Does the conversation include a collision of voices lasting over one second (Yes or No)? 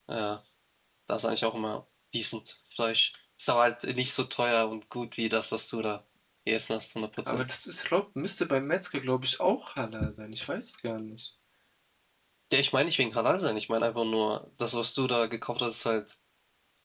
No